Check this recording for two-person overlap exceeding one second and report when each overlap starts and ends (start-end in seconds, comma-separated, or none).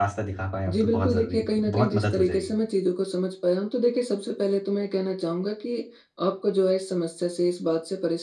0.7-2.5